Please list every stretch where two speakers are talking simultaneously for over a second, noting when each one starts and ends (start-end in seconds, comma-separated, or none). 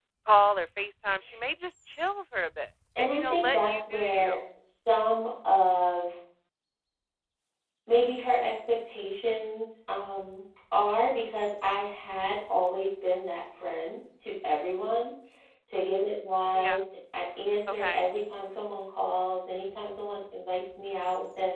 3.0-4.4